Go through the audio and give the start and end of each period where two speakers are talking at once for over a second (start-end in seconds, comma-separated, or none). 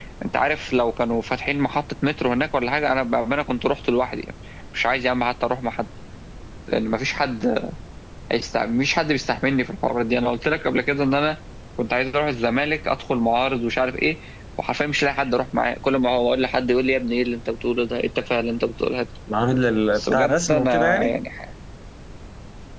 19.9-21.1